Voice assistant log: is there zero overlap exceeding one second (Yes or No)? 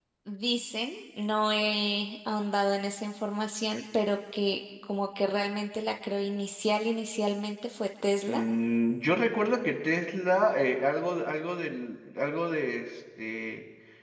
Yes